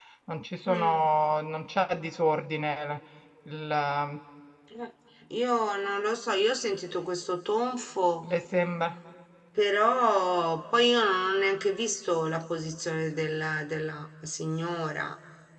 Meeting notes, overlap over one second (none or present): none